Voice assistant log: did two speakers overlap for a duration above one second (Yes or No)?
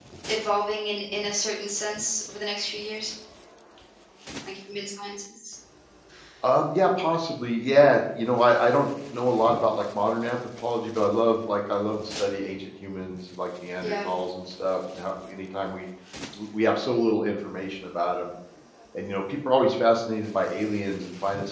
No